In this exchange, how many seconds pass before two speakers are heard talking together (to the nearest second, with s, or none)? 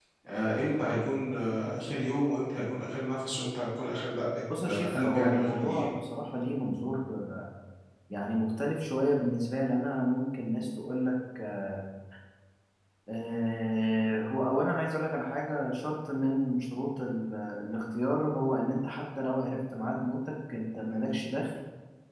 4 s